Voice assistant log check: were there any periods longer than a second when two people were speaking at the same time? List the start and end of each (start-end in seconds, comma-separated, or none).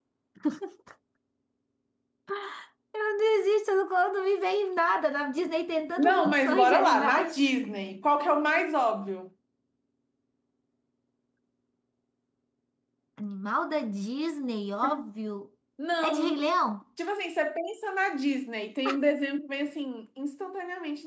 6.0-7.5